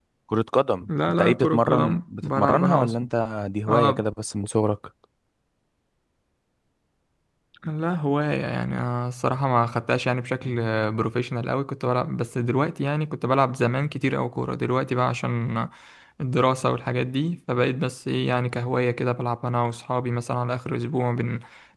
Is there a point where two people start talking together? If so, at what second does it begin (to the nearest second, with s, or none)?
1 s